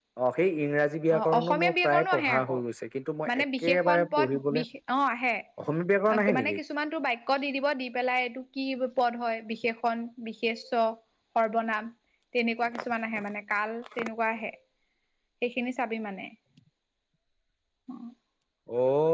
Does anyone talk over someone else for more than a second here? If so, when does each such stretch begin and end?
1.2-2.6, 3.3-4.6

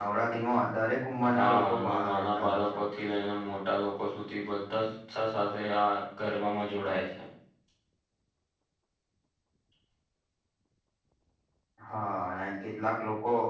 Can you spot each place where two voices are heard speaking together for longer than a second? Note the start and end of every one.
1.3-2.8

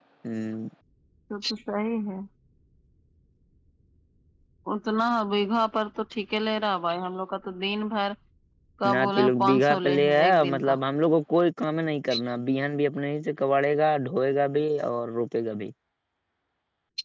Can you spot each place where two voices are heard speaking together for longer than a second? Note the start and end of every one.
8.9-10.7

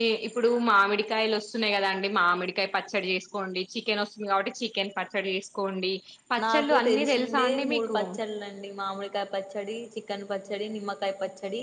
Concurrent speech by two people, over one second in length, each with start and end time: 6.4-8.0

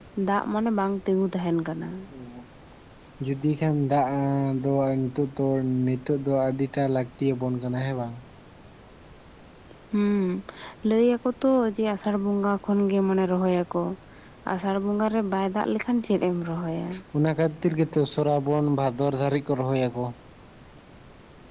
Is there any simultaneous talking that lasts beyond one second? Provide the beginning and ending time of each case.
none

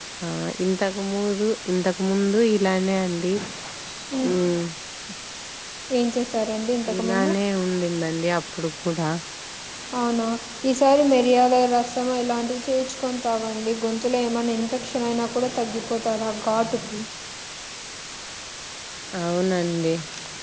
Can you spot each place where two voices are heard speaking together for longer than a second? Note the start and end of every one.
none

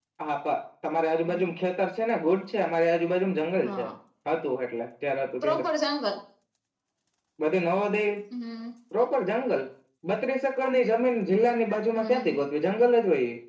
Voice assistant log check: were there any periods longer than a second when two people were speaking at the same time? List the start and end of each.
none

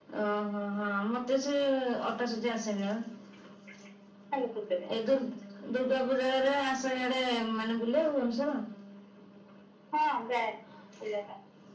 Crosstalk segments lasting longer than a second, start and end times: none

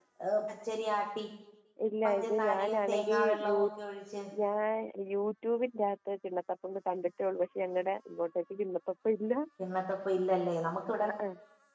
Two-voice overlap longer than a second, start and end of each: 2.0-3.6

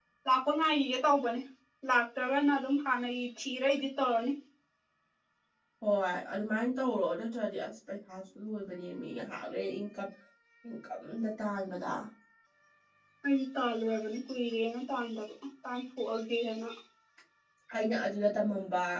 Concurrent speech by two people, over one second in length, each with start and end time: none

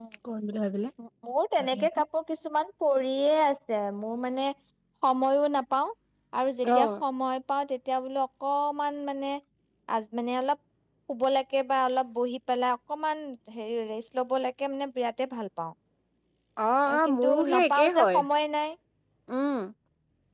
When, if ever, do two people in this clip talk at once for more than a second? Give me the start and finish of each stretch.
16.9-18.2

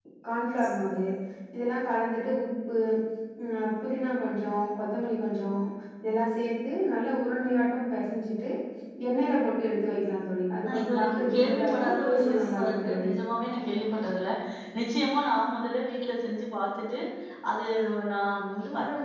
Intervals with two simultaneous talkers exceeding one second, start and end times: 10.6-13.1

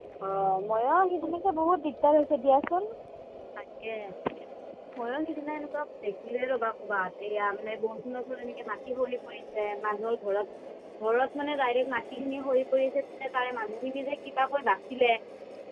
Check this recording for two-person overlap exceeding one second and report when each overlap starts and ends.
none

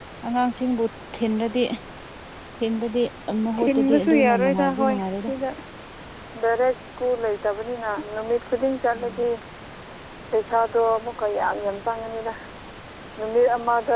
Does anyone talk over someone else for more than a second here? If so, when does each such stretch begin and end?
3.6-5.3

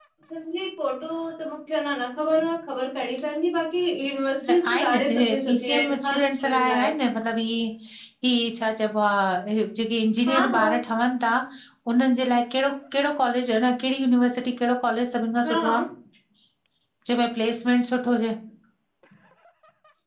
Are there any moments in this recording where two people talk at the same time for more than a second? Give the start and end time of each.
4.5-6.9

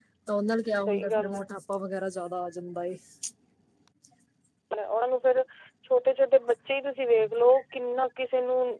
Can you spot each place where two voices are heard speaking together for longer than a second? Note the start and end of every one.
none

